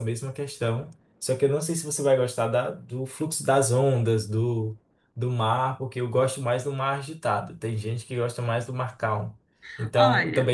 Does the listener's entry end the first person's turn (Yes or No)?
No